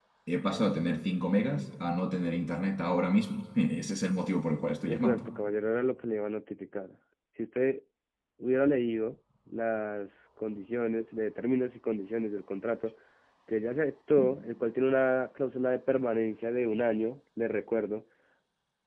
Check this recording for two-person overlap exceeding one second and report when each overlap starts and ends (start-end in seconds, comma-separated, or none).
none